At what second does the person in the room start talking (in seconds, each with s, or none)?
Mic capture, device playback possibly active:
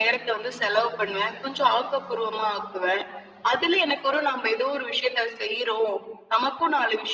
none